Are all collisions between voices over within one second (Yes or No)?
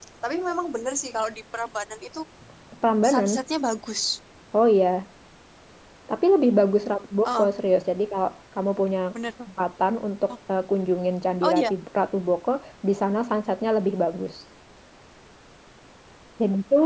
Yes